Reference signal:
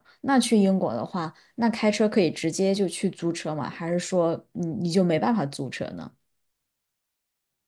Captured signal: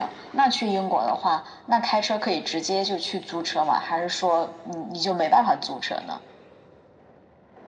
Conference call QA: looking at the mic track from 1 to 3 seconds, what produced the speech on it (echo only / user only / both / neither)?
echo only